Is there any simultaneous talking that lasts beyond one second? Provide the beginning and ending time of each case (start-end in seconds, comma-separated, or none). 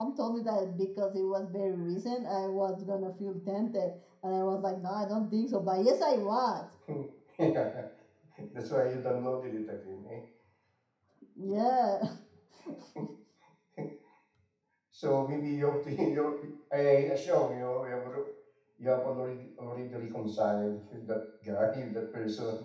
none